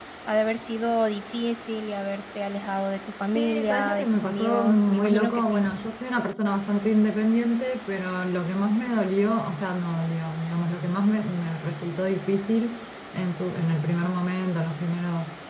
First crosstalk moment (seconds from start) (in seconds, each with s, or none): 3.4 s